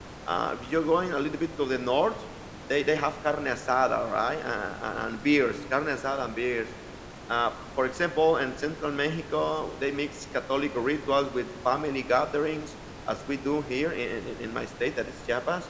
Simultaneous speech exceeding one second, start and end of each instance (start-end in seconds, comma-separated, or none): none